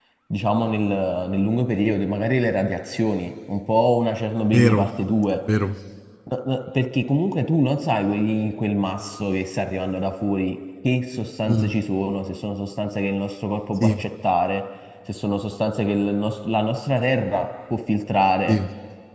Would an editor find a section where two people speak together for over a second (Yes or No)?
No